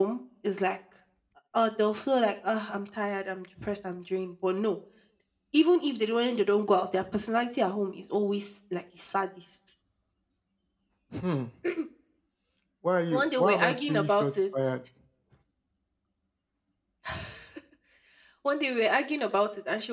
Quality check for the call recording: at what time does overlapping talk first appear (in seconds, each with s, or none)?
13.1 s